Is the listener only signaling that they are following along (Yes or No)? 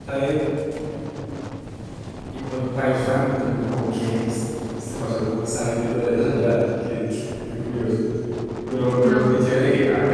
Yes